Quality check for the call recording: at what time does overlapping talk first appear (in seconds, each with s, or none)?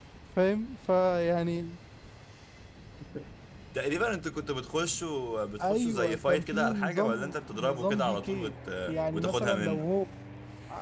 5.6 s